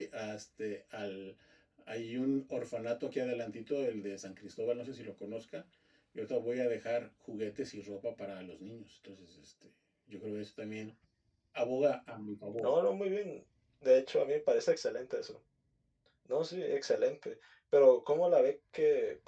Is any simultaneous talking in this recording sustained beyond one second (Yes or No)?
No